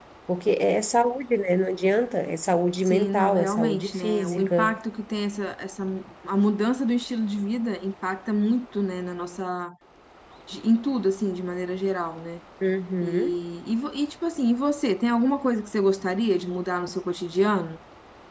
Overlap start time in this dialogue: 3 s

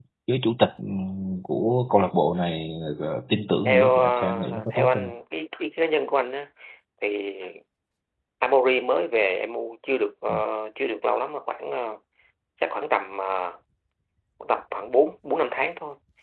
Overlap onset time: 4 s

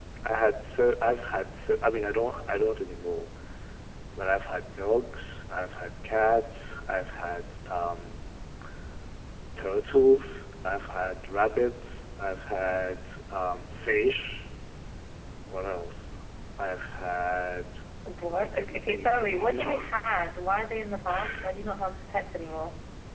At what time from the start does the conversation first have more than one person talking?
18 s

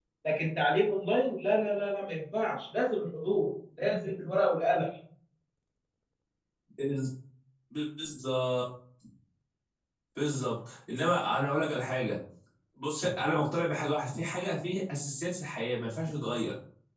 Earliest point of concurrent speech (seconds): none

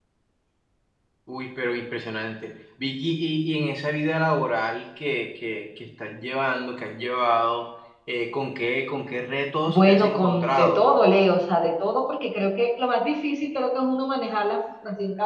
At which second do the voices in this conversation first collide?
10 s

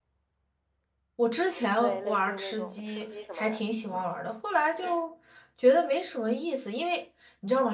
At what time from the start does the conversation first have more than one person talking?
2 s

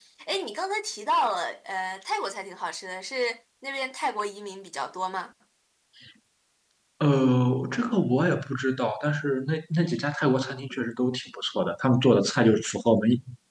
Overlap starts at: none

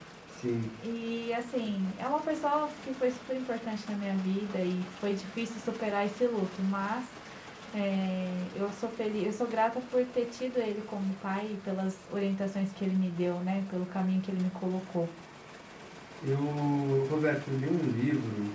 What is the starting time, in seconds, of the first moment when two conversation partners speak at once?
none

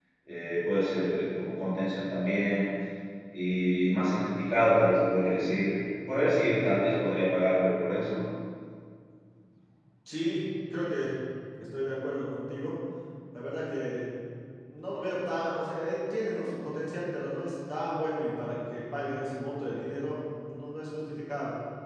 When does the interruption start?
none

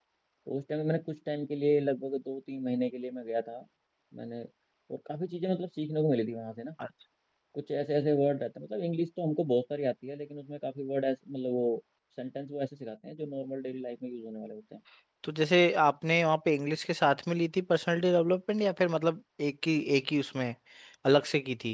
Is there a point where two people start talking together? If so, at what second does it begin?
none

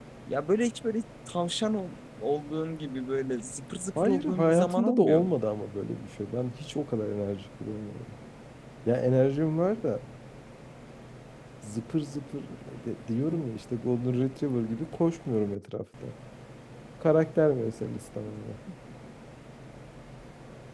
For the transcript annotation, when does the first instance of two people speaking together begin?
4 s

